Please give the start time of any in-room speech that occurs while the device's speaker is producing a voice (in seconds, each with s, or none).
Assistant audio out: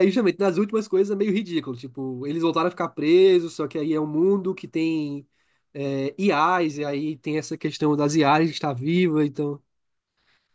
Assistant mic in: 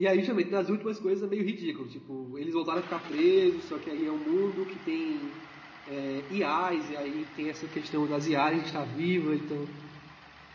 none